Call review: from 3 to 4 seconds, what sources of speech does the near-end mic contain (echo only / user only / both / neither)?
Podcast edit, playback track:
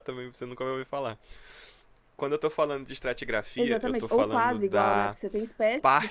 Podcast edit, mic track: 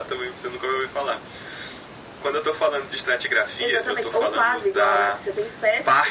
echo only